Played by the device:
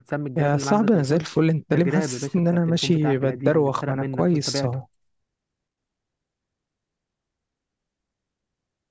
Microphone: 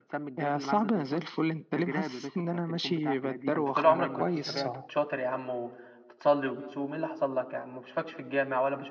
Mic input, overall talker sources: both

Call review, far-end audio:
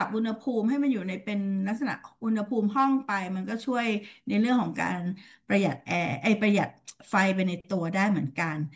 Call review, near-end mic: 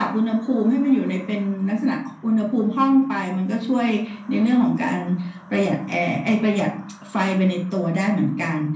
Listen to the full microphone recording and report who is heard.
echo only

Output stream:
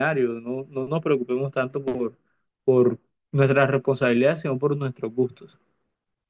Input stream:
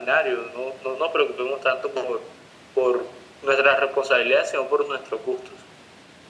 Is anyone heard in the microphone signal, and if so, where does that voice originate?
echo only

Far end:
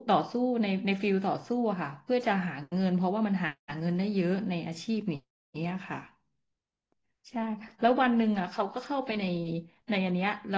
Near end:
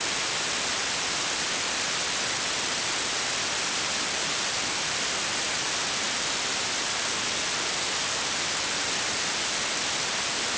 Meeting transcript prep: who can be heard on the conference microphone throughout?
neither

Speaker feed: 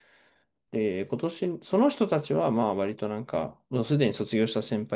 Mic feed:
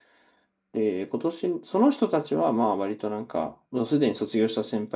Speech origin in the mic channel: echo only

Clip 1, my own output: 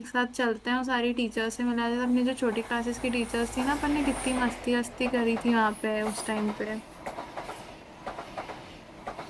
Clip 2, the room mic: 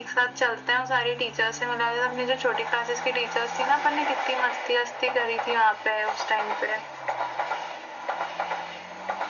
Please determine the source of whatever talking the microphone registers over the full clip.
echo only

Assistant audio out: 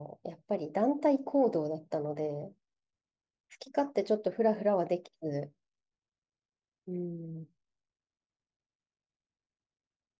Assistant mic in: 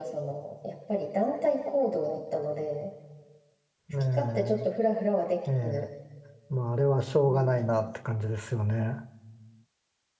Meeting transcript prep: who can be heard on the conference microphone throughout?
both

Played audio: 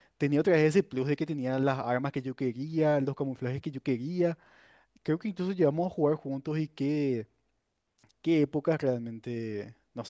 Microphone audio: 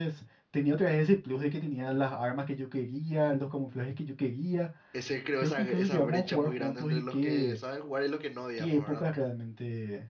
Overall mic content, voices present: both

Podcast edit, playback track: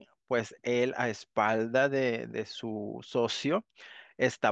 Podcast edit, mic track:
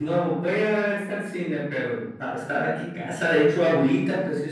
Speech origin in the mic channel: user only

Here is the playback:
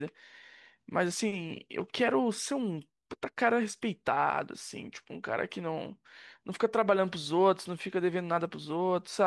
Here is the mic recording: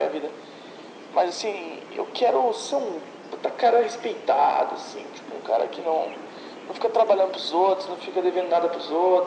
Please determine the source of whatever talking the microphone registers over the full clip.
echo only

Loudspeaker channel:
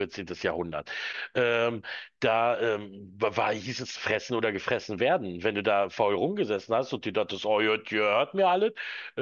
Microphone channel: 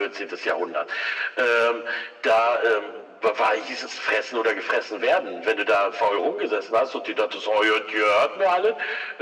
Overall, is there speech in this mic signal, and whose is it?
echo only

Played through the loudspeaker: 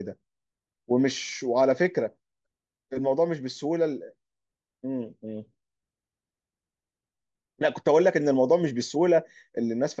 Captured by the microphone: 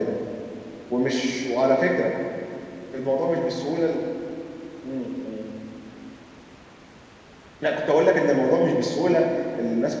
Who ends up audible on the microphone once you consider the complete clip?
echo only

